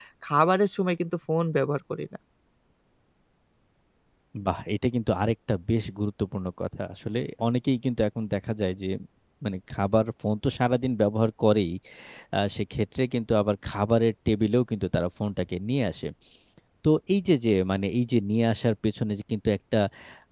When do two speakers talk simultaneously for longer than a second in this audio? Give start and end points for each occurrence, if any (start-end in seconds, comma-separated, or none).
none